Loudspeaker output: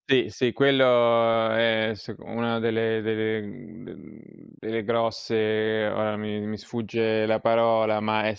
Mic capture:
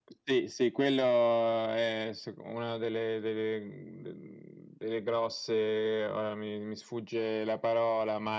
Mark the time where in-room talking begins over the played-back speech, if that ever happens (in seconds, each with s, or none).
none